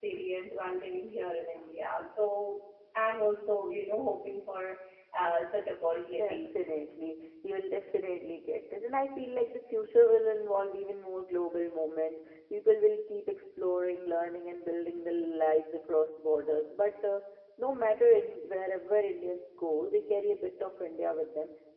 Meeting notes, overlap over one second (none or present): none